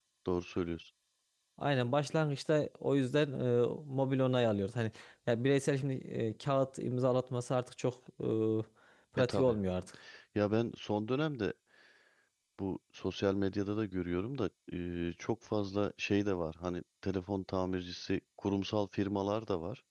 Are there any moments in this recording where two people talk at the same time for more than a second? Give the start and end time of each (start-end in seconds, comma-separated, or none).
none